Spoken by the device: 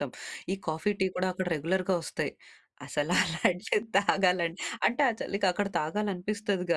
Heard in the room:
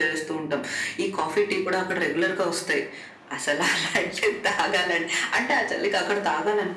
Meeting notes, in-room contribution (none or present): none